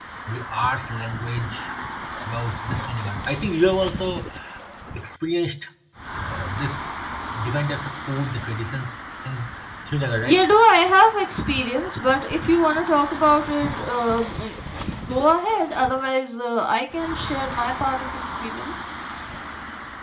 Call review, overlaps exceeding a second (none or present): none